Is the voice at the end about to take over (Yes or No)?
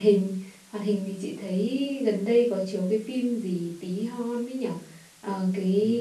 No